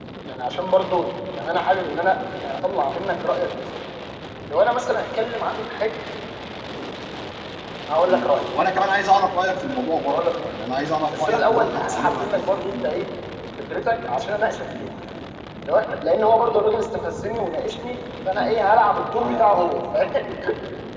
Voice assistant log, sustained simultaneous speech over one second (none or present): present